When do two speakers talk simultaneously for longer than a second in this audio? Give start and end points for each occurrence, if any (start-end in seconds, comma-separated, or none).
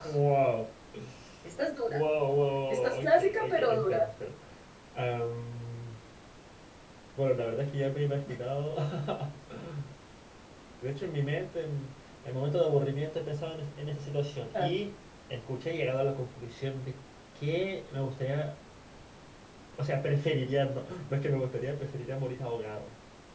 2.7-4.0